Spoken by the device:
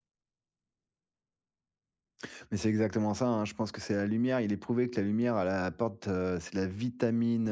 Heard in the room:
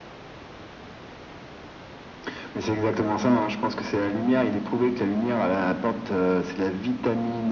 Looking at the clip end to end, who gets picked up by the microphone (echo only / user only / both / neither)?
echo only